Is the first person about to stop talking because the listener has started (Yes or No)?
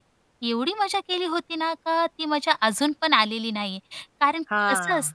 No